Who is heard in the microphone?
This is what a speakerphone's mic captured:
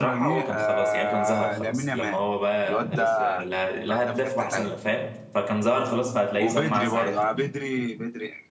both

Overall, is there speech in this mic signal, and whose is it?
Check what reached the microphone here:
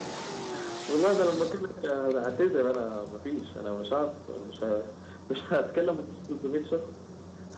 echo only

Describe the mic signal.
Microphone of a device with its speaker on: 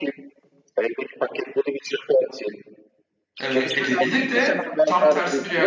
both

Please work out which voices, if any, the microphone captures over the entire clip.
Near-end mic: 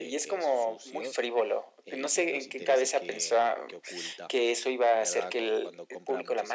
both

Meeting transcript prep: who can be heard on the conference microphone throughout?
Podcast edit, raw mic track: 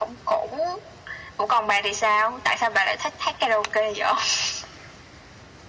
echo only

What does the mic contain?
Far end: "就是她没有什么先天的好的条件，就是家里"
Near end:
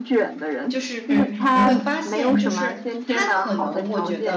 both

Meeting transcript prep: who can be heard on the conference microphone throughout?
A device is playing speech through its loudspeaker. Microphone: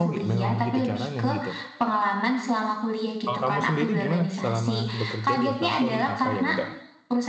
both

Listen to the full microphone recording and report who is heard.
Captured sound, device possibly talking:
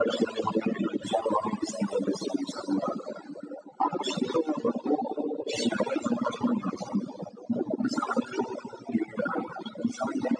echo only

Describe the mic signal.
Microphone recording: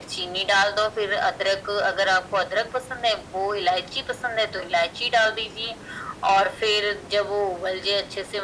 echo only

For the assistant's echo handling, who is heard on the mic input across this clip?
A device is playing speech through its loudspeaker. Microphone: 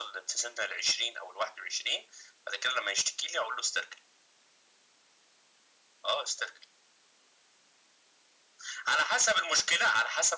echo only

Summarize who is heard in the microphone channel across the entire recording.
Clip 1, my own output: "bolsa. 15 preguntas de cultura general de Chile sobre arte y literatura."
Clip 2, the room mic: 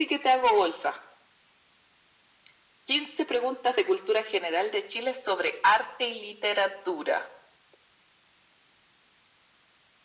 echo only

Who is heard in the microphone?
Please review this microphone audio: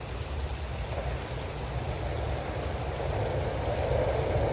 neither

